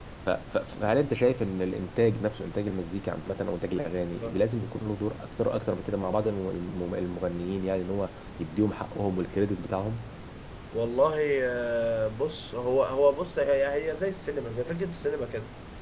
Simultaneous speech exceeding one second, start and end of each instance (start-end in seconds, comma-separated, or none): none